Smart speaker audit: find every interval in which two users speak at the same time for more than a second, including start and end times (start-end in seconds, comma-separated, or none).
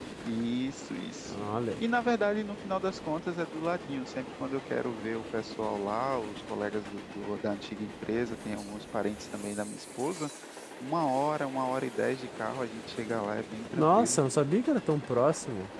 none